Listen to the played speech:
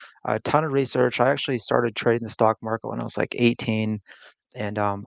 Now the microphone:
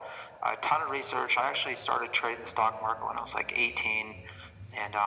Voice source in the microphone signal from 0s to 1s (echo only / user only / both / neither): echo only